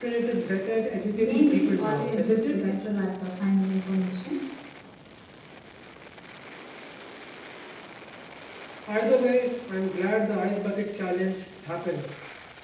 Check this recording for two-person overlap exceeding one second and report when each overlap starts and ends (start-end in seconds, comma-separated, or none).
1.1-2.6